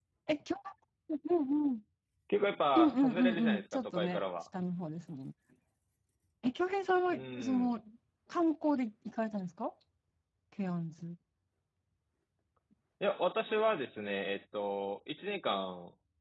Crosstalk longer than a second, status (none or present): present